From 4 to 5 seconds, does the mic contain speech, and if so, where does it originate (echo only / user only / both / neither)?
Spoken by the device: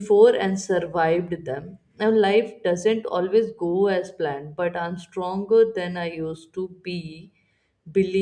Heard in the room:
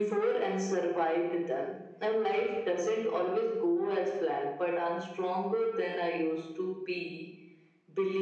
echo only